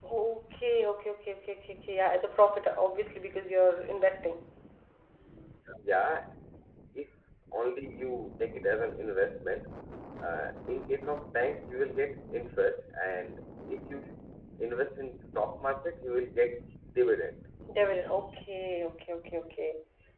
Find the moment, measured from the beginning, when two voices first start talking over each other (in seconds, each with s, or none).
none